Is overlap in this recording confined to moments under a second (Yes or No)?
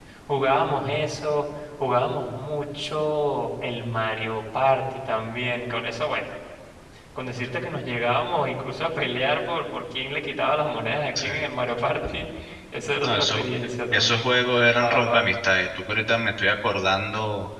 Yes